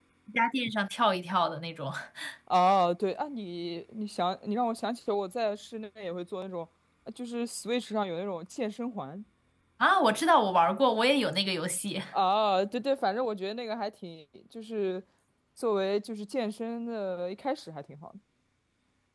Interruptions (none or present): none